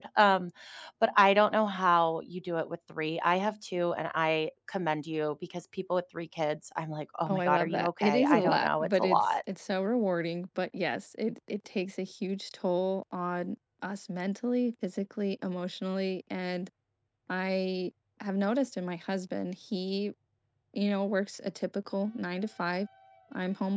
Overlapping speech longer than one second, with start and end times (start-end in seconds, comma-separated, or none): 7.3-9.2